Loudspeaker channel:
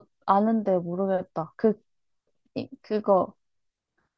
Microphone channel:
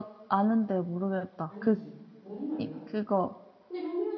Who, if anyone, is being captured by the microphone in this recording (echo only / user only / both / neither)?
both